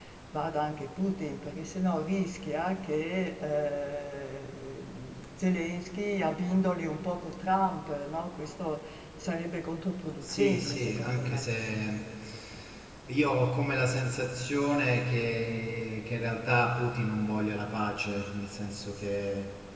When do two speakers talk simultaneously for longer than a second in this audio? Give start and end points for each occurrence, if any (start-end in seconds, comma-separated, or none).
10.2-11.5